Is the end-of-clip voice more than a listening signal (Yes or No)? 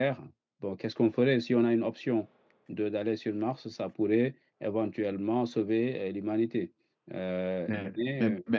Yes